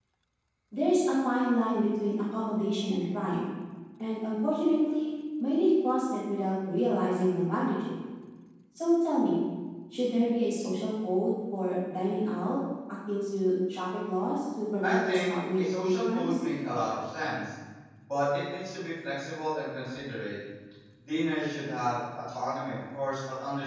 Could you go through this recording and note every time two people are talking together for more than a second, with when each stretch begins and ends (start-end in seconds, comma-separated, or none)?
14.8-16.3